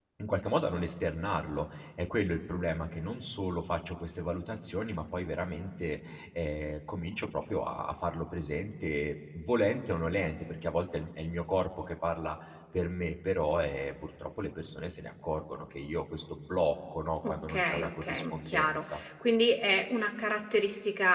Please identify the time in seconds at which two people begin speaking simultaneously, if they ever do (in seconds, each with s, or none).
17.2 s